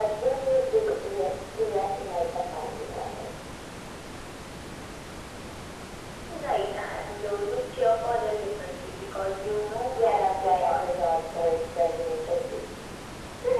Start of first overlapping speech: 9.9 s

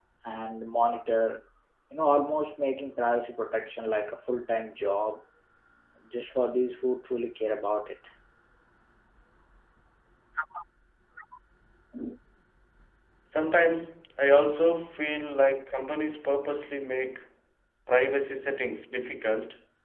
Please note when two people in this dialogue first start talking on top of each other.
none

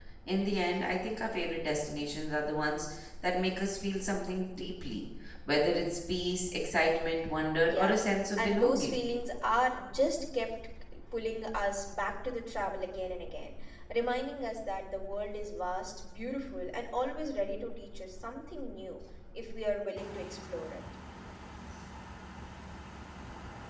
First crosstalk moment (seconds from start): 7.6 s

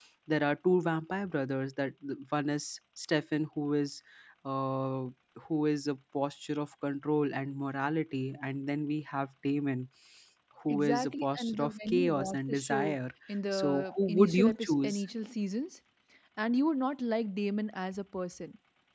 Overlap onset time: 10.7 s

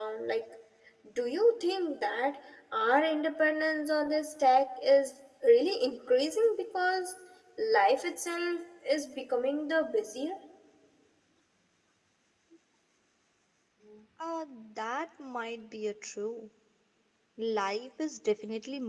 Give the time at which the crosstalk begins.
none

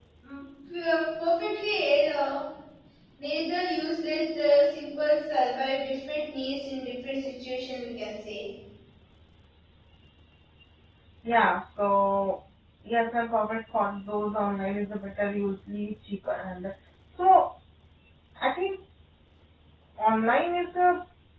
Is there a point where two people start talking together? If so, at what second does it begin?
none

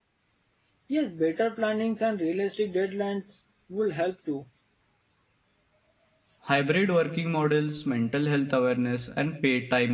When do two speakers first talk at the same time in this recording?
none

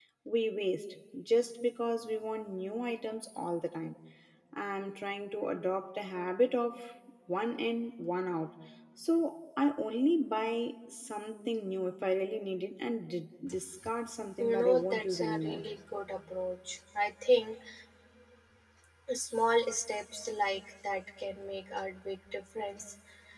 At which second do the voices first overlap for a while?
14.4 s

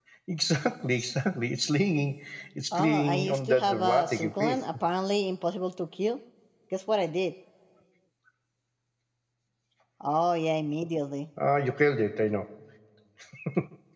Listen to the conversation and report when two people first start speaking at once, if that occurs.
2.7 s

